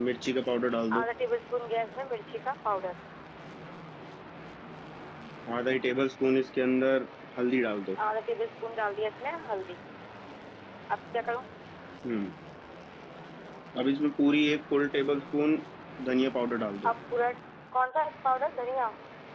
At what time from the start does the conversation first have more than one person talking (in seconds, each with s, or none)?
none